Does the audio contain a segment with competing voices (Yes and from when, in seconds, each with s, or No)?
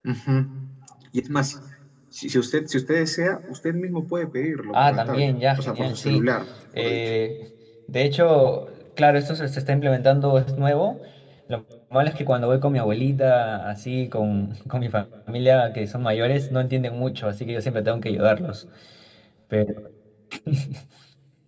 Yes, from 4.7 s